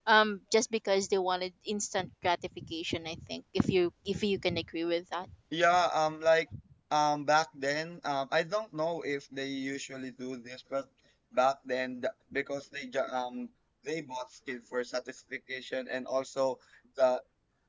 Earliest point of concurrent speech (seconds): none

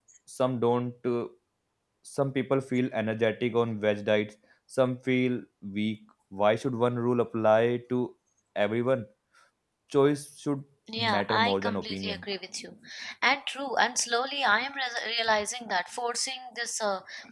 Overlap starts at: 11 s

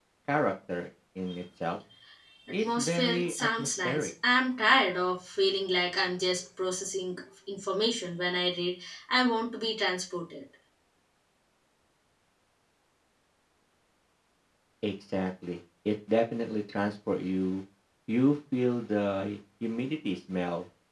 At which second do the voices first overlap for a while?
3 s

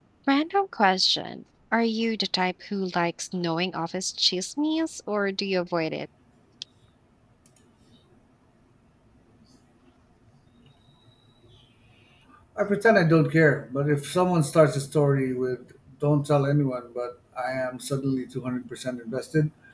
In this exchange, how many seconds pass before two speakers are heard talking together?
none

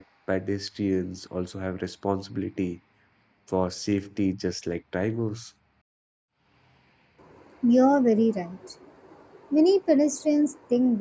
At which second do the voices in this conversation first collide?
none

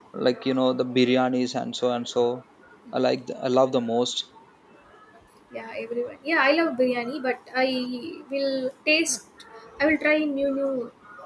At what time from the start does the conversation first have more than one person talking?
none

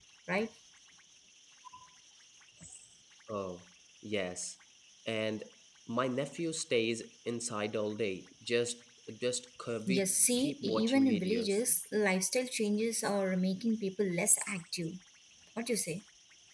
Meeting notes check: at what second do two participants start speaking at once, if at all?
10 s

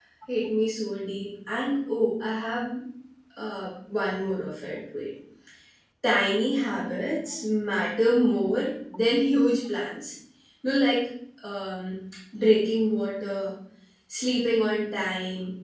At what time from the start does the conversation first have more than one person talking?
none

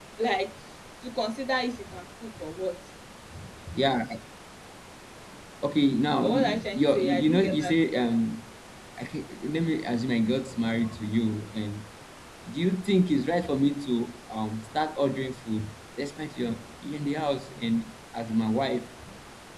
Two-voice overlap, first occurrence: 6 s

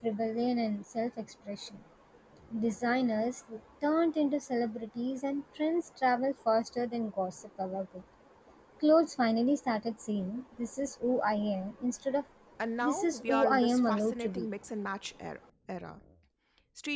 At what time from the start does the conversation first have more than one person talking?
13 s

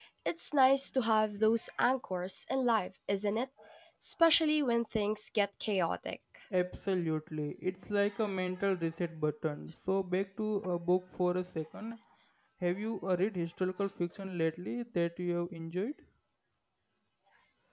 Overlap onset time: none

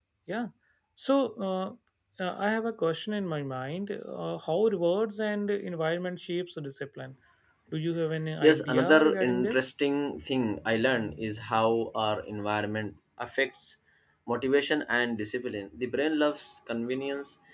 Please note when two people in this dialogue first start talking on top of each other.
8 s

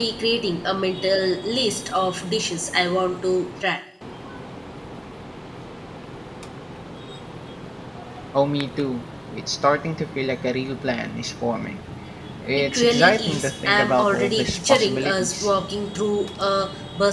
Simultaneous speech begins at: 13 s

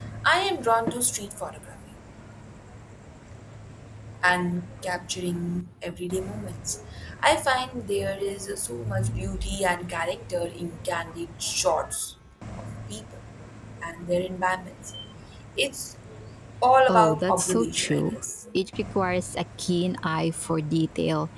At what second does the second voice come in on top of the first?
17 s

